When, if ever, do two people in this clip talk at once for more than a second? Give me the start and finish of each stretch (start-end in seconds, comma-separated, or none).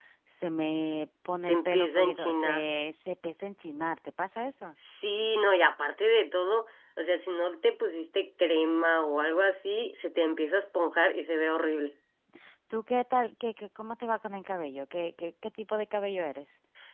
1.4-2.6